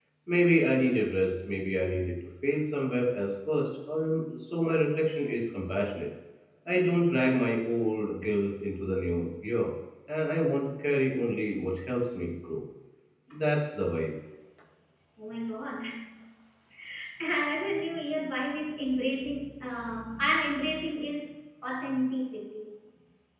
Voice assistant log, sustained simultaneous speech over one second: none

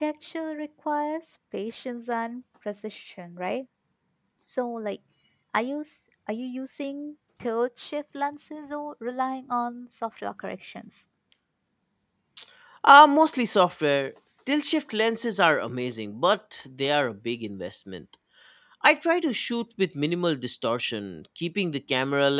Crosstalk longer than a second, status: none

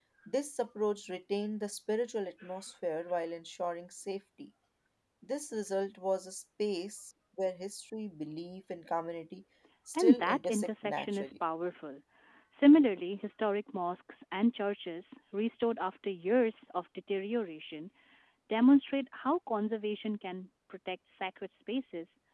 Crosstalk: present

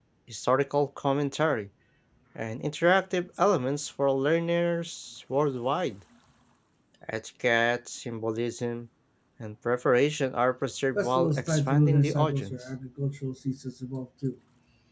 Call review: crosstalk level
present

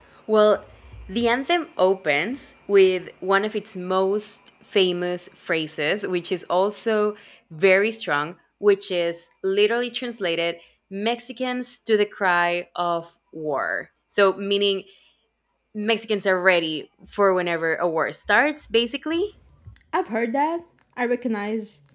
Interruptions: none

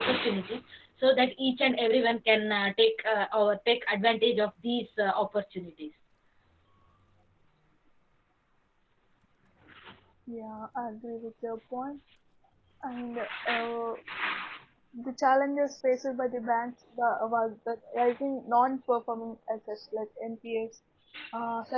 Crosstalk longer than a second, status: none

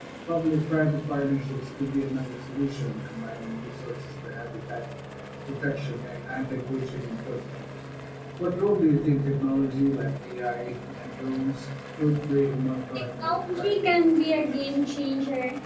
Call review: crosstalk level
present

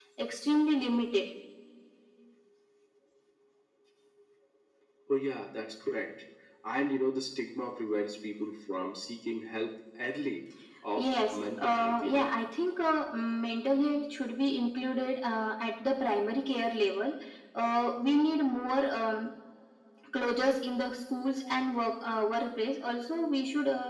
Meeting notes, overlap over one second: present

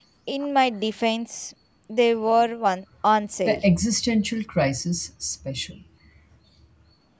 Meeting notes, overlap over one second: none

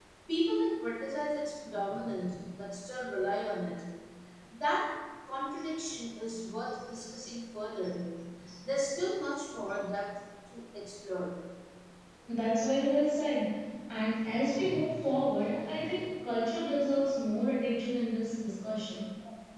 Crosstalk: none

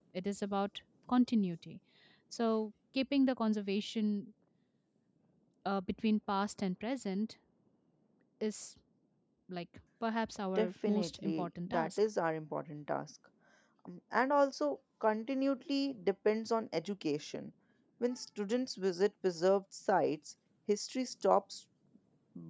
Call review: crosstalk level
present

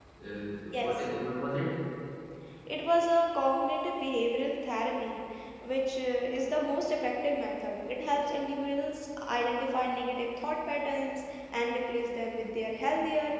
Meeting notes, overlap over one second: none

